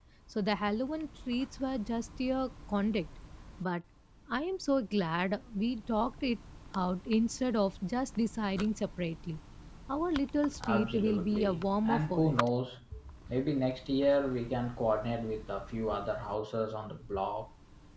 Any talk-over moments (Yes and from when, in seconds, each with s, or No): Yes, from 10.7 s